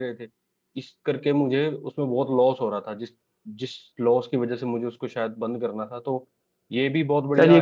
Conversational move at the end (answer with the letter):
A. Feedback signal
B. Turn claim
B